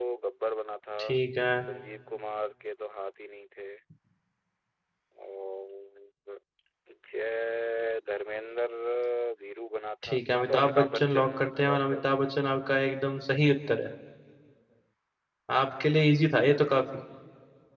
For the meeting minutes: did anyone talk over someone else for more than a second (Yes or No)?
Yes